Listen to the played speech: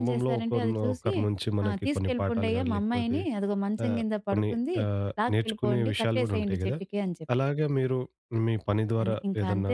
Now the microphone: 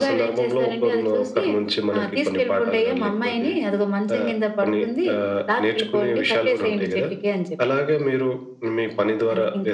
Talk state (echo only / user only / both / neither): echo only